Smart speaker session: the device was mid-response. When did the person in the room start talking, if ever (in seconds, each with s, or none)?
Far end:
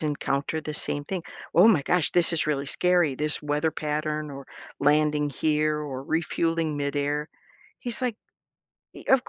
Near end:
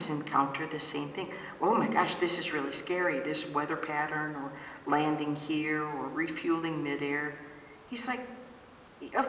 none